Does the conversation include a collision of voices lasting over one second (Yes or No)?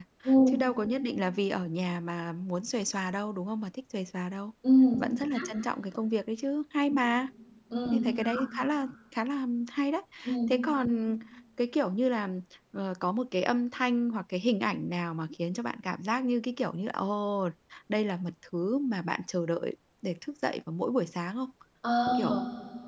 No